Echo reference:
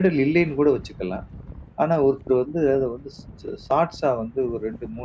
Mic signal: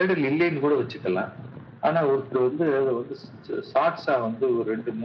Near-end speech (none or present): none